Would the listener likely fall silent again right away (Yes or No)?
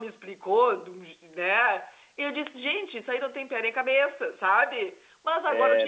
Yes